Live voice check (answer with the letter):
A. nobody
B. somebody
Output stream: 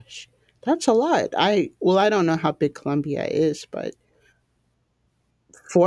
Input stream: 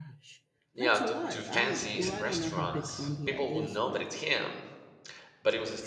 B